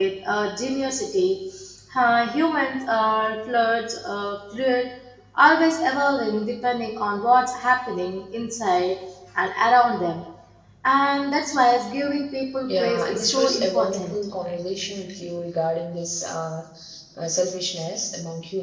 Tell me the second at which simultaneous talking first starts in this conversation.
12.6 s

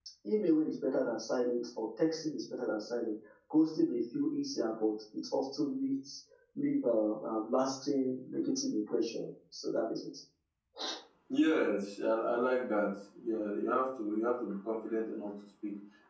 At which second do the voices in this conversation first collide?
none

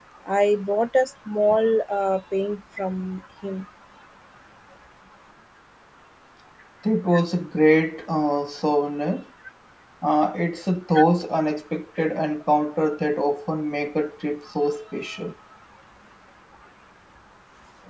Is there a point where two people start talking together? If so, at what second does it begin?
none

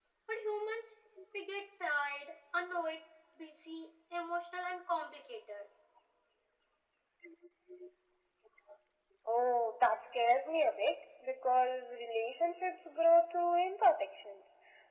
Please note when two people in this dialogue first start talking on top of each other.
none

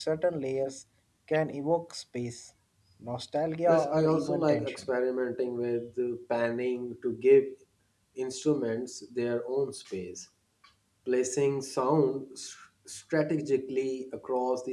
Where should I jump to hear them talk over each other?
3.7 s

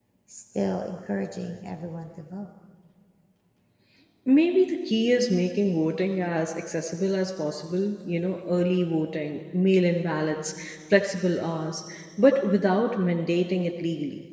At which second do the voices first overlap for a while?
none

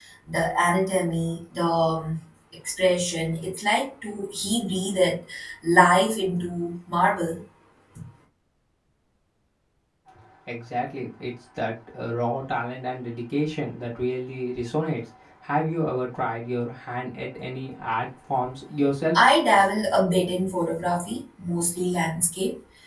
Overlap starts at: none

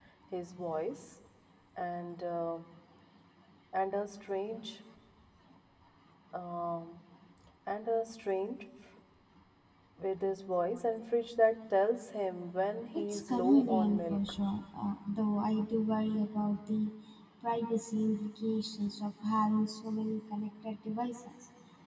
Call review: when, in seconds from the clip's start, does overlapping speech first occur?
12.9 s

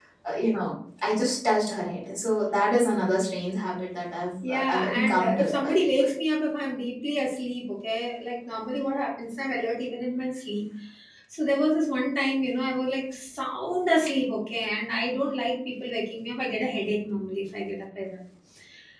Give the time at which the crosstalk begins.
4.4 s

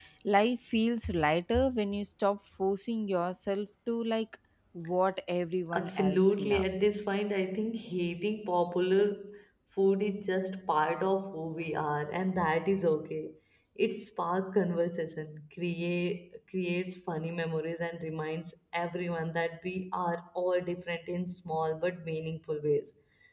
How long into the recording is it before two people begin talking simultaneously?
5.7 s

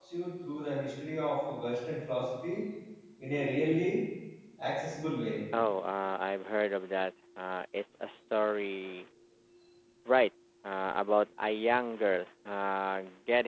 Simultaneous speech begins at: none

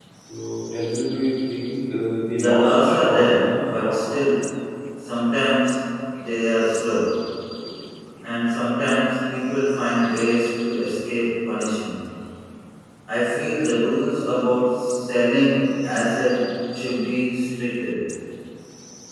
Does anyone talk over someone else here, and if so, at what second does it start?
2.3 s

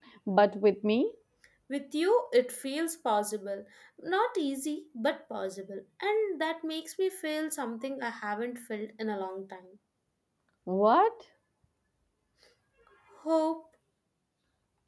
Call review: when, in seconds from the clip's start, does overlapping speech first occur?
none

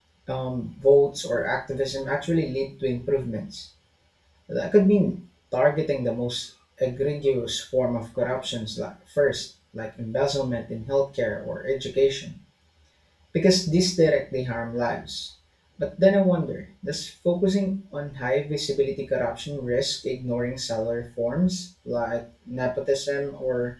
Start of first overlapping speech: none

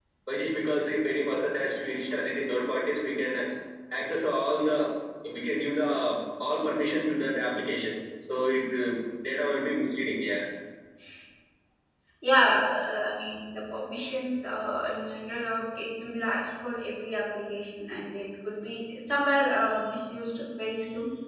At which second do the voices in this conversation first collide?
none

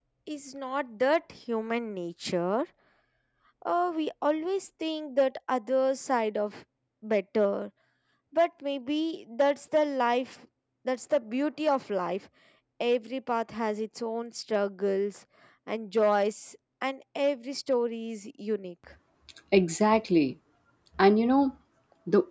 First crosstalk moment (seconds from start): none

